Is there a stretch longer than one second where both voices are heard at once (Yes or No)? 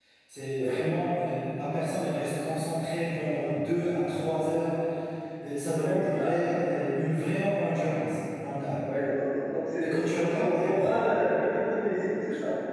Yes